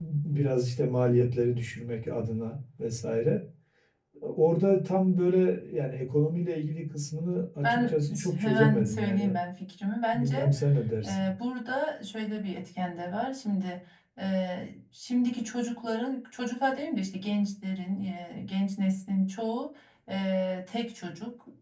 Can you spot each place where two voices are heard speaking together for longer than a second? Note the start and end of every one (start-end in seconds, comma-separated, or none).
7.6-9.3